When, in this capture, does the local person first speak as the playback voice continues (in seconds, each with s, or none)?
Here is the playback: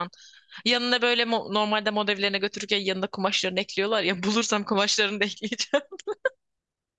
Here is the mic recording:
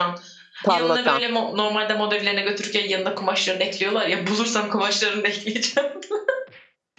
0.6 s